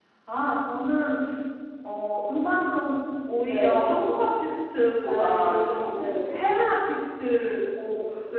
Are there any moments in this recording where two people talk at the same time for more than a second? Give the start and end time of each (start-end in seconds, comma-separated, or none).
5.0-6.4